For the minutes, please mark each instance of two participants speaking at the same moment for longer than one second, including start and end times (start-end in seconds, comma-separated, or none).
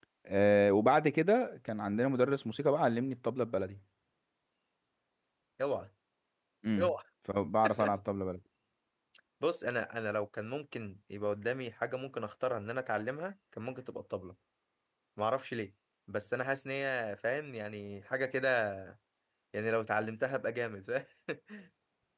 none